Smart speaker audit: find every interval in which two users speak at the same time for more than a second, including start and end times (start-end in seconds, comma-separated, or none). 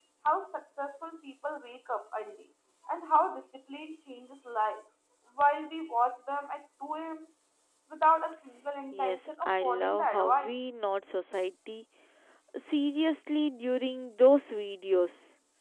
8.9-10.5